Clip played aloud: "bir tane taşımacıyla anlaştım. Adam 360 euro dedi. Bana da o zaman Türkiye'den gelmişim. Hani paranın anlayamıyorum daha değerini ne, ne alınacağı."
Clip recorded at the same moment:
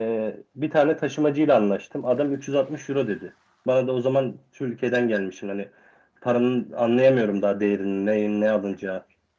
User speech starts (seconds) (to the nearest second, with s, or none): none